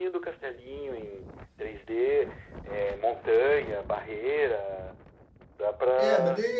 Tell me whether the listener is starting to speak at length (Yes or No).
Yes